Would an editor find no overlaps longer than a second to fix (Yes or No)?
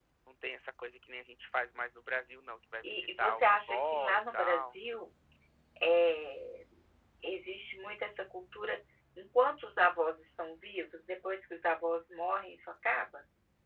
No